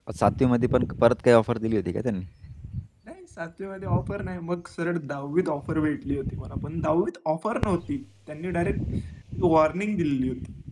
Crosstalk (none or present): none